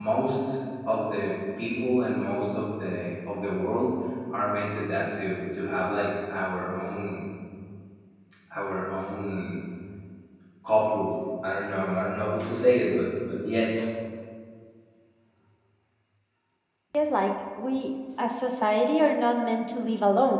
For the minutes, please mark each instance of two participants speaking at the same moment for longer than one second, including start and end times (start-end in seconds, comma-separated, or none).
none